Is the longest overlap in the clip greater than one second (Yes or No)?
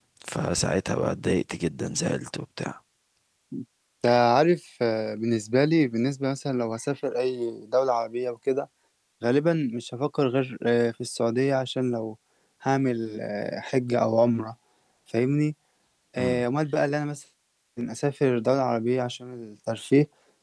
No